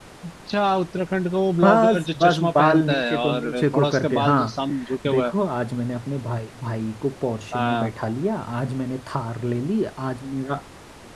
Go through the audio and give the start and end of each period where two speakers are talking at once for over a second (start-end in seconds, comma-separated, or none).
1.6-4.6